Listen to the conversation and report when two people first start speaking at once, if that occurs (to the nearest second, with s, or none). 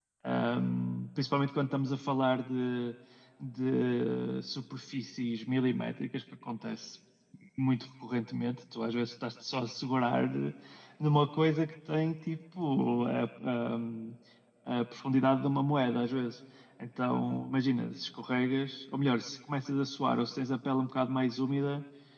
none